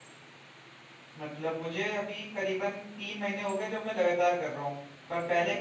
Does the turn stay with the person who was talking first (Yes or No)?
Yes